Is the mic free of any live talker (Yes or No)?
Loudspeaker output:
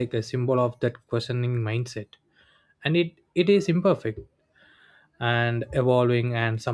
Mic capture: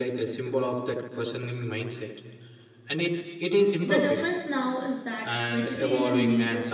No